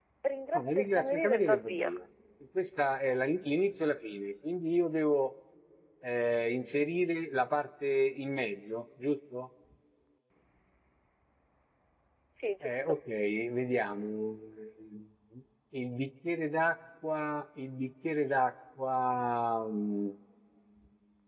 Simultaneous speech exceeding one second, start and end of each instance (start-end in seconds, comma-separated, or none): 0.5-1.9